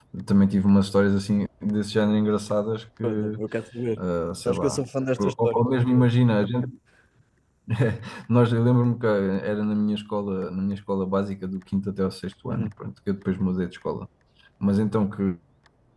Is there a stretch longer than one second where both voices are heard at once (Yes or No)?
No